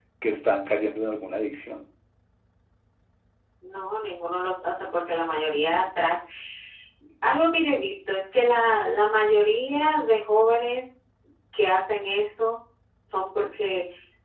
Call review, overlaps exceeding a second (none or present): none